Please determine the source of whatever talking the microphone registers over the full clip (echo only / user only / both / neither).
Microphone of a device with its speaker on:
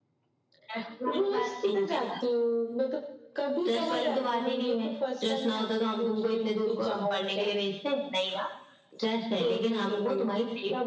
both